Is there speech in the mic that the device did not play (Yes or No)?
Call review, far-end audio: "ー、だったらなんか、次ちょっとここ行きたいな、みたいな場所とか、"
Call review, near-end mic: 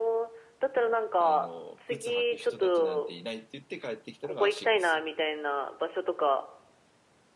Yes